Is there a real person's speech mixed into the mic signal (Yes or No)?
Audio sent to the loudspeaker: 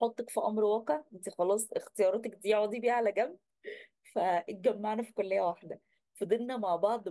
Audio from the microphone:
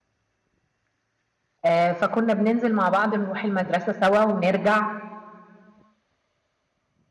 Yes